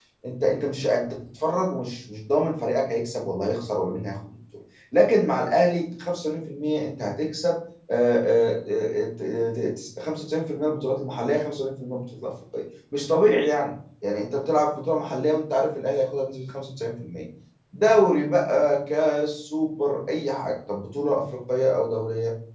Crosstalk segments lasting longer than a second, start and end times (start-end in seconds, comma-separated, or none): none